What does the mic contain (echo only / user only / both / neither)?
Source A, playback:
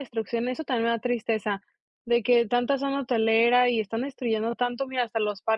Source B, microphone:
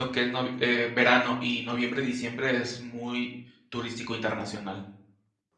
user only